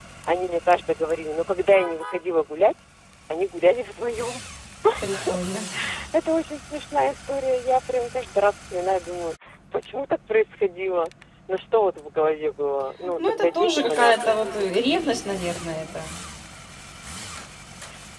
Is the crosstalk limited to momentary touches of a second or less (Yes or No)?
No